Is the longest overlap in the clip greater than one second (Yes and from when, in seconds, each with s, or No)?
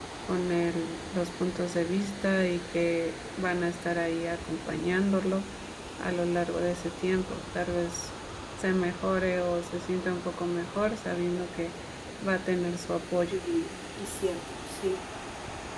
No